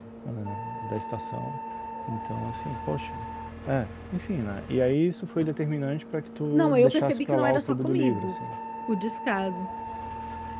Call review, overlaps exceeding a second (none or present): present